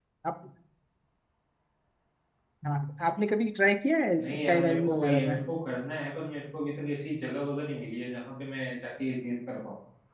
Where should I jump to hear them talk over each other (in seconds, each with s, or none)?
4.2 s